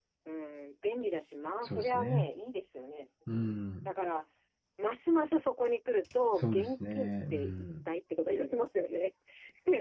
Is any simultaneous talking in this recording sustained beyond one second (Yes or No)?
Yes